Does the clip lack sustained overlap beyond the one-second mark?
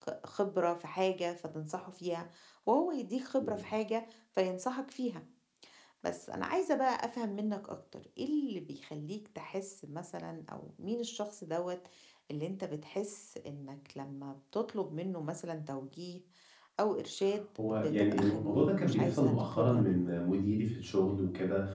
No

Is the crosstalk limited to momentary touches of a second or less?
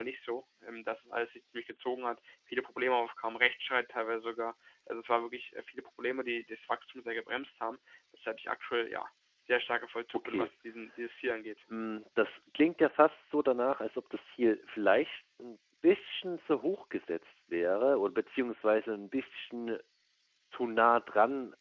Yes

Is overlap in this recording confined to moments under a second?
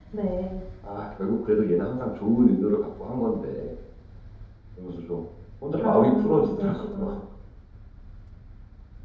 No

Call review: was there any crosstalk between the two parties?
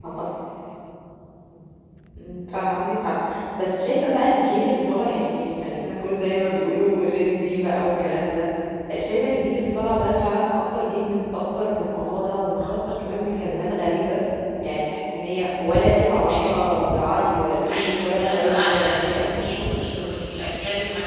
Yes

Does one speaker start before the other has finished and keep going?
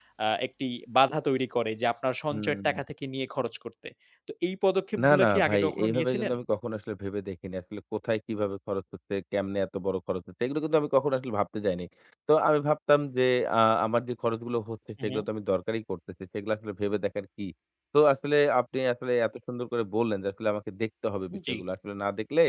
Yes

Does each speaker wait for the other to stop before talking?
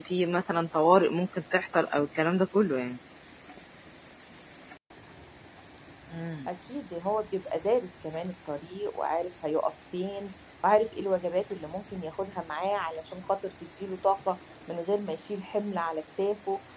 Yes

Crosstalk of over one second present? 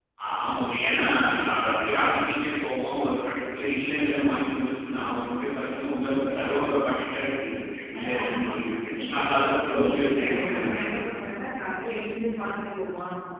Yes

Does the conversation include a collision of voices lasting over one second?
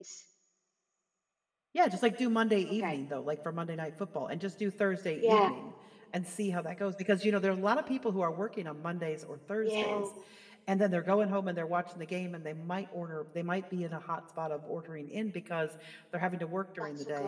No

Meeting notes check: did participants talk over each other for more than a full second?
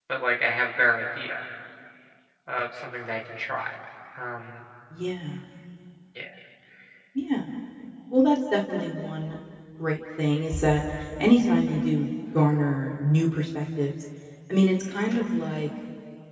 No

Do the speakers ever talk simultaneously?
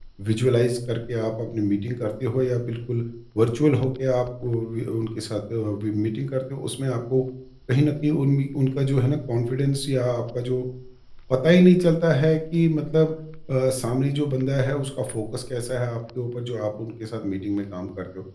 No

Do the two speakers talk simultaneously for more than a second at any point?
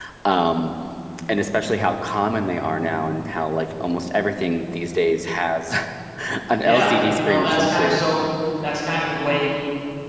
Yes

